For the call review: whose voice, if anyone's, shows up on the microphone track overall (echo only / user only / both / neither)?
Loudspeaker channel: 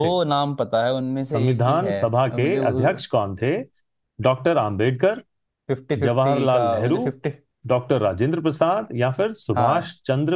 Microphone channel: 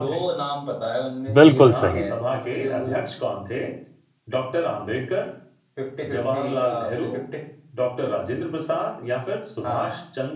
both